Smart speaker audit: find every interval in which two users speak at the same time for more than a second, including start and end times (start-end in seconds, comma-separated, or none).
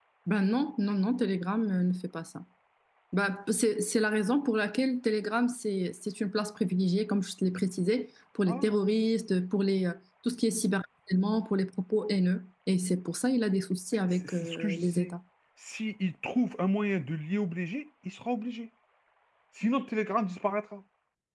13.9-15.1